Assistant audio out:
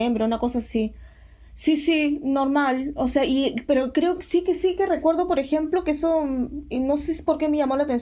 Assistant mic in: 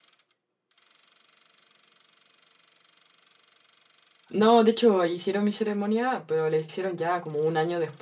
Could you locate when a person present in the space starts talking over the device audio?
4.3 s

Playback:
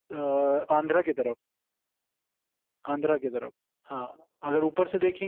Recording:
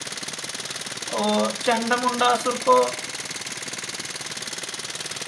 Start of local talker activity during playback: 1.1 s

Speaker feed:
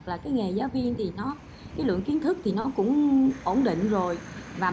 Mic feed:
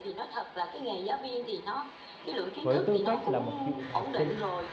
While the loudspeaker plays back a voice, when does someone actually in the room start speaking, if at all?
2.6 s

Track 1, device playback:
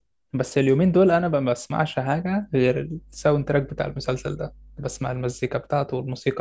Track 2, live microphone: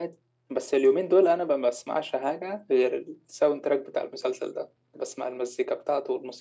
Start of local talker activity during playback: none

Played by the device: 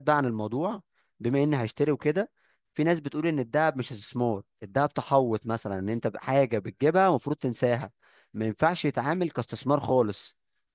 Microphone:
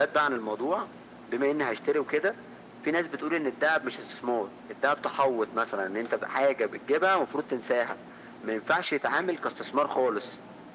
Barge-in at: none

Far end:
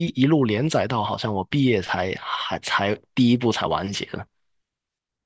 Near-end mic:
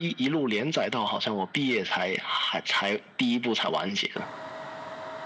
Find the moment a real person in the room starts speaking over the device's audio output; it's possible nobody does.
none

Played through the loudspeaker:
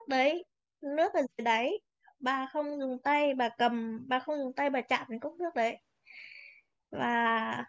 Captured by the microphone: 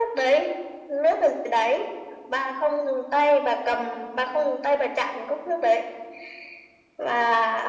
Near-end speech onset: none

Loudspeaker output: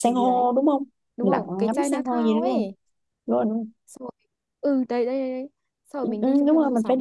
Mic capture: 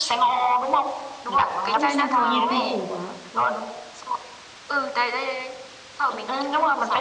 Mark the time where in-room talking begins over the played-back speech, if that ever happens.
1.7 s

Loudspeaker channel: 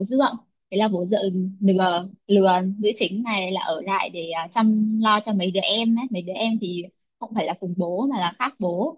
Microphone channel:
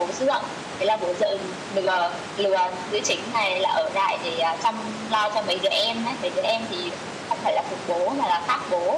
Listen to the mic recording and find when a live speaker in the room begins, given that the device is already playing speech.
none

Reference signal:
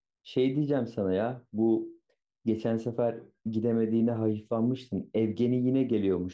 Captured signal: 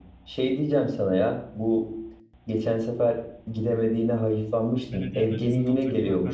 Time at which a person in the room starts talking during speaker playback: 4.9 s

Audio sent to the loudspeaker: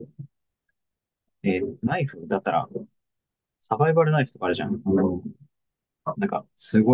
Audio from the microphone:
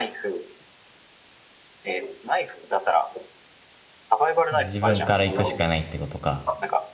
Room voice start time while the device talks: 4.5 s

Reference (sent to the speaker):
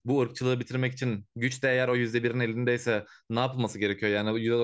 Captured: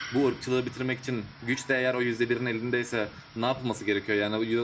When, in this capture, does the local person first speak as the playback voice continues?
none

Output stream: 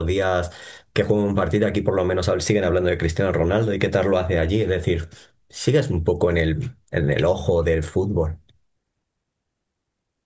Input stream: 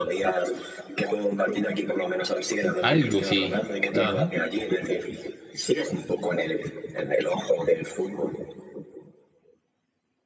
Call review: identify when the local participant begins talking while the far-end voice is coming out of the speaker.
2.8 s

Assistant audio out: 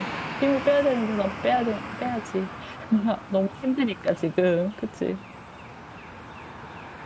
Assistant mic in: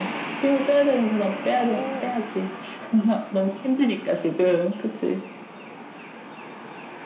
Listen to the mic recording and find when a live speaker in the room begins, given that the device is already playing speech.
1.6 s

